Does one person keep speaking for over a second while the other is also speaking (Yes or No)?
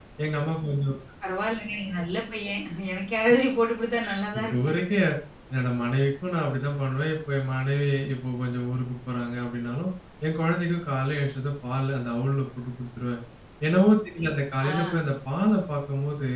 No